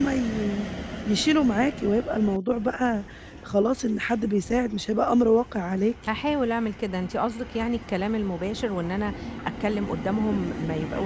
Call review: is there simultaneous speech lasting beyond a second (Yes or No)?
No